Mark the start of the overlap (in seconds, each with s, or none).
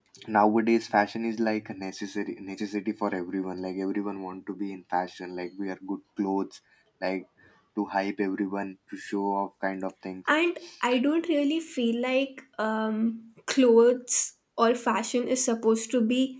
none